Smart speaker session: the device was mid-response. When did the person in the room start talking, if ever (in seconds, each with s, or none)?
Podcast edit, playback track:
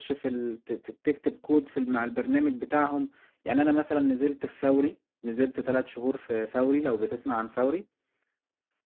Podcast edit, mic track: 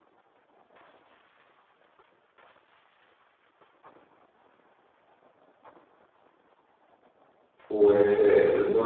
7.7 s